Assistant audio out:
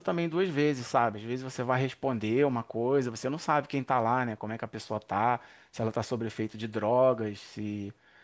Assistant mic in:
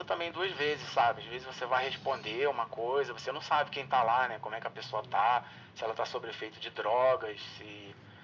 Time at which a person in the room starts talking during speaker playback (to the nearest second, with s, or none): none